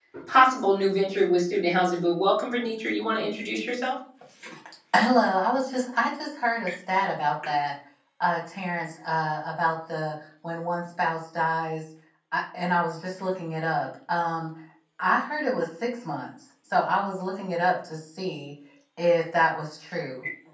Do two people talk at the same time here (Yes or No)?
No